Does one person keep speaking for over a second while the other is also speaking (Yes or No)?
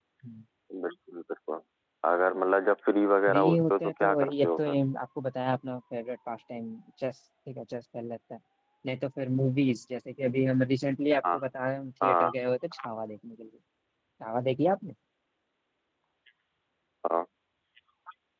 Yes